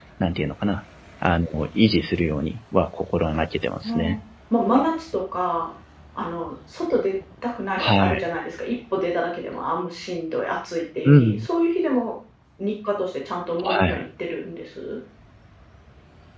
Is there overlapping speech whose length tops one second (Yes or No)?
No